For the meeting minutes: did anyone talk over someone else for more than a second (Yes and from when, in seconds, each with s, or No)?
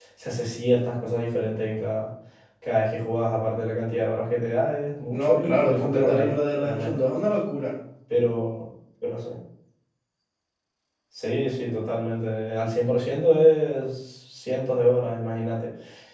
Yes, from 5.1 s